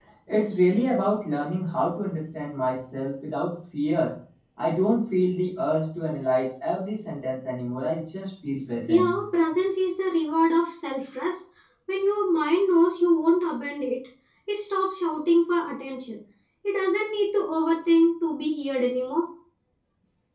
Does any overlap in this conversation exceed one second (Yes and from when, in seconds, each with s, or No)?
No